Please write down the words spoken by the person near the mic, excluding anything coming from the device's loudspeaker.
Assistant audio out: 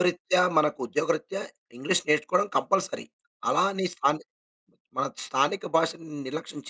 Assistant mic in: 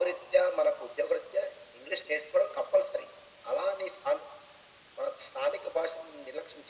none

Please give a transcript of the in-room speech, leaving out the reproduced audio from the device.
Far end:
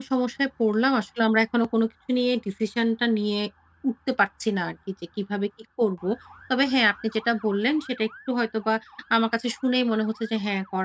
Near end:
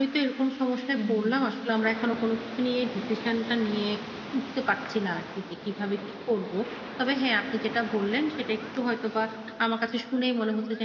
হুম, হুম।

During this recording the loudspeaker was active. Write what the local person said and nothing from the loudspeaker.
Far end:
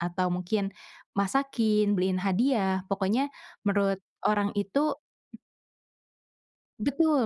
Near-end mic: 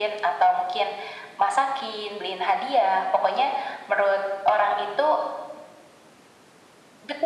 none

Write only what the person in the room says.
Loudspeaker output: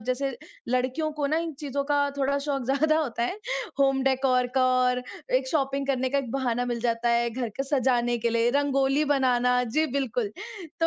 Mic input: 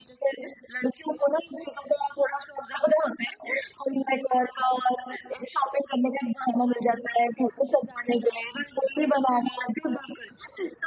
none

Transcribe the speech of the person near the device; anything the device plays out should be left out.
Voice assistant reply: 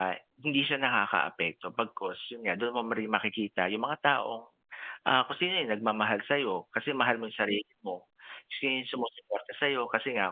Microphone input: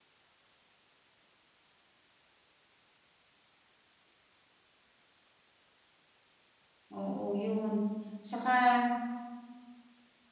oo, 'yon, saka

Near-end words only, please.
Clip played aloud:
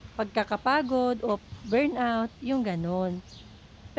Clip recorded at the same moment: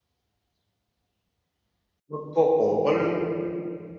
magko-call,

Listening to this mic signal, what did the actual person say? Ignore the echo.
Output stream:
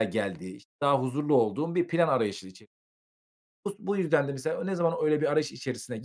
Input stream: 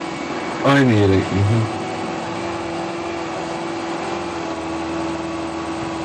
Aynı yere I hı.

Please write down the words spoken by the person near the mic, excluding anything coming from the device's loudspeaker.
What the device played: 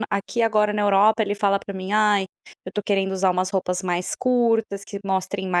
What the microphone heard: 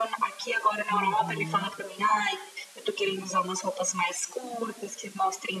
Uhum.

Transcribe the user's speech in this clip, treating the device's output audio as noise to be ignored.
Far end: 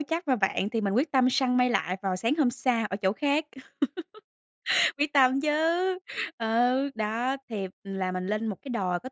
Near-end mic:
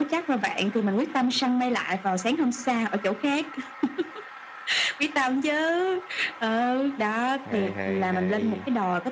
Hay, hay, hay.

